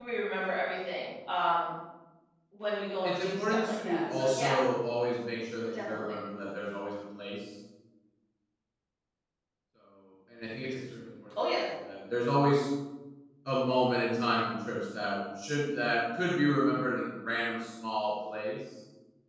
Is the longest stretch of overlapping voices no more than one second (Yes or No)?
No